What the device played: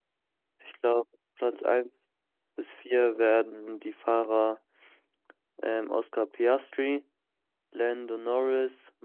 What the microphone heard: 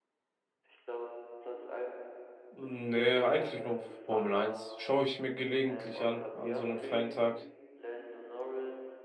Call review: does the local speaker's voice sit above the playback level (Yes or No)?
Yes